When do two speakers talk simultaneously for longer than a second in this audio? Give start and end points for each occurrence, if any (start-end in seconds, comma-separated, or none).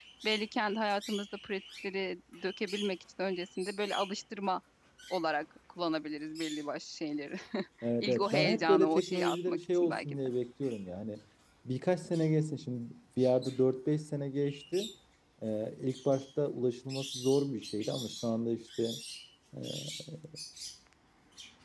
8.0-10.2